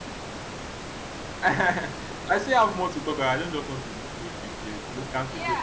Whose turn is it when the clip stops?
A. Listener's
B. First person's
A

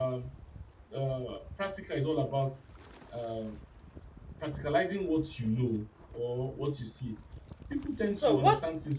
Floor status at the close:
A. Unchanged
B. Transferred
A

